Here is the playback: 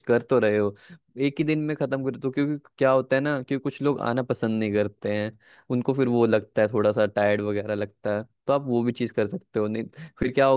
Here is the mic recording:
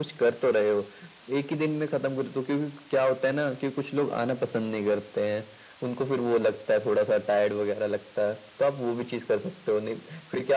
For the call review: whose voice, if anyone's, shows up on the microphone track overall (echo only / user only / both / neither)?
echo only